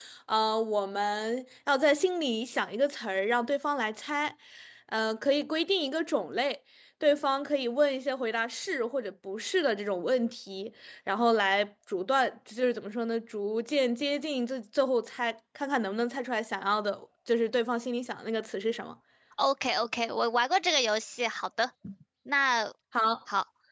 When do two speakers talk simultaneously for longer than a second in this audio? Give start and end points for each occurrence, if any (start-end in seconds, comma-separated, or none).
none